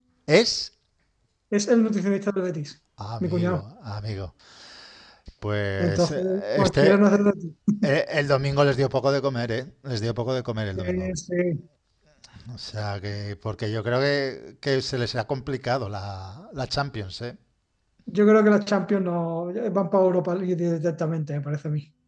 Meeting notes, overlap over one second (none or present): present